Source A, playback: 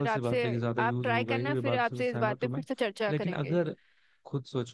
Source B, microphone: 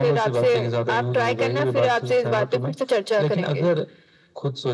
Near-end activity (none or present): none